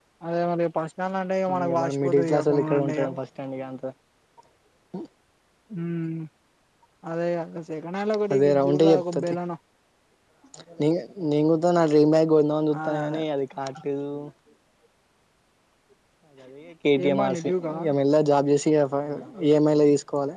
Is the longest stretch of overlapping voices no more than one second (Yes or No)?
No